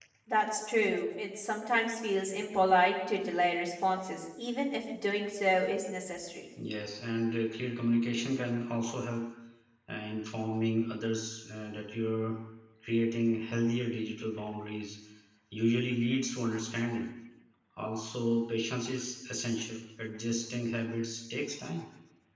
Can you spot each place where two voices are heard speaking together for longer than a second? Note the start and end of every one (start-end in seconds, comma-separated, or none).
none